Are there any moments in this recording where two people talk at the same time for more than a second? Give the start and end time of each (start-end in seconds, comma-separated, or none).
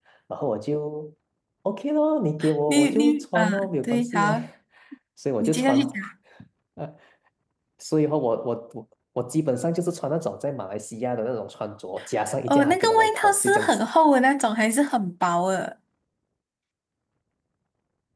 2.7-4.3, 12.5-13.9